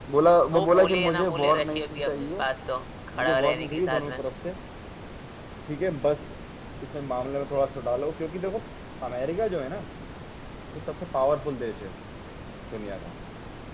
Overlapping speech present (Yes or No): Yes